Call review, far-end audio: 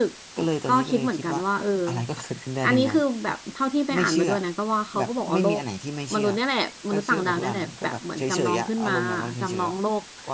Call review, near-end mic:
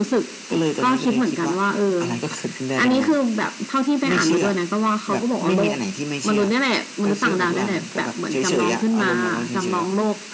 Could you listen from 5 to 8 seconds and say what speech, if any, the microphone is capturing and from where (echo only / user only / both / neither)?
echo only